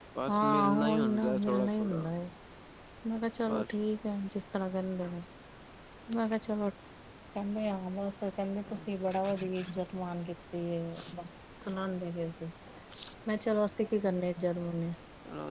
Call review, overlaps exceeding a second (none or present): present